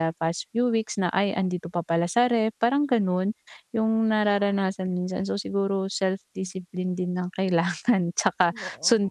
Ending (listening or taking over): listening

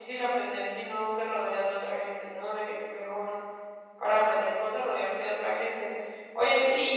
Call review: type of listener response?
listening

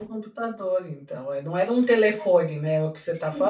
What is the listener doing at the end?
taking over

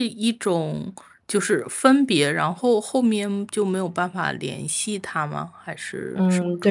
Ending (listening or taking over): taking over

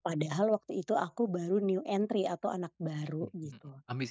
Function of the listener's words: taking over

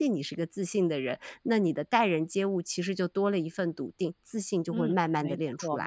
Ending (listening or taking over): taking over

